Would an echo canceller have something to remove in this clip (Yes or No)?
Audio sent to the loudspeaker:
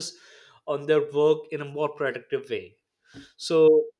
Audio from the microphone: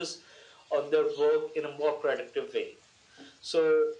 Yes